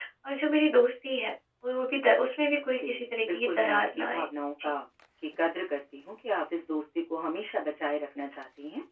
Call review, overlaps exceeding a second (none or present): present